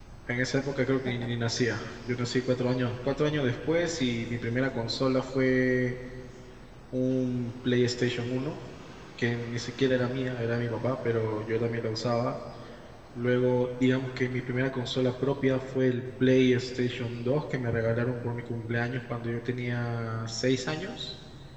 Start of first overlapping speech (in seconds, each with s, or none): none